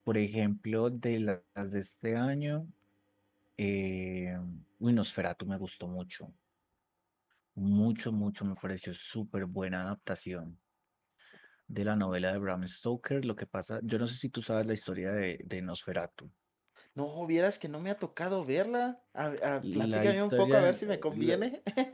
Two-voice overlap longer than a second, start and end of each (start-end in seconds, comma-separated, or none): 19.6-21.4